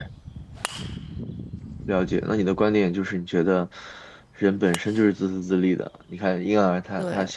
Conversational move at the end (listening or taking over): listening